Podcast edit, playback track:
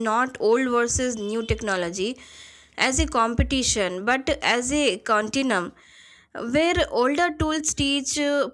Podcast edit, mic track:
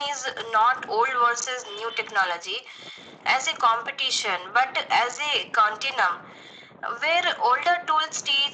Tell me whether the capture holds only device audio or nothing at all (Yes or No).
Yes